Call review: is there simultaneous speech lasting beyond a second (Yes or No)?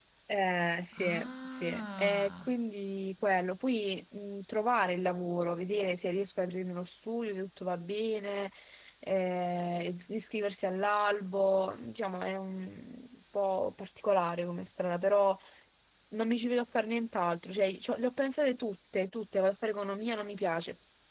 Yes